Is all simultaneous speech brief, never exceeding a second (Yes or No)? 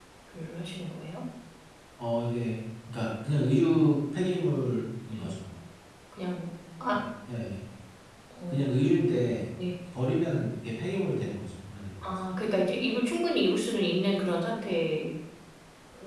Yes